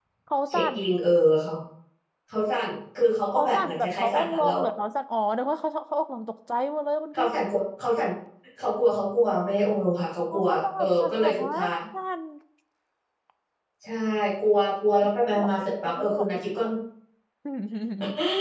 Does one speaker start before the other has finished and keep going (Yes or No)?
Yes